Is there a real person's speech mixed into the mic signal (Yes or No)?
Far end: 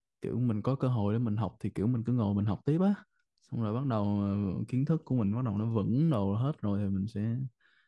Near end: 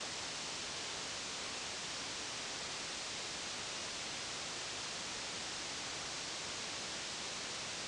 No